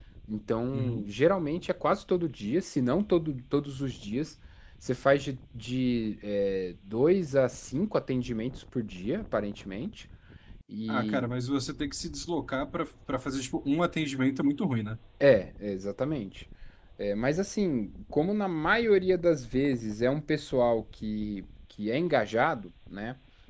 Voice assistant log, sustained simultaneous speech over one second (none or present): none